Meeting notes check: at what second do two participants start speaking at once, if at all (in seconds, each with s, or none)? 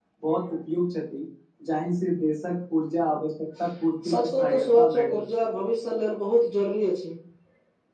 4.0 s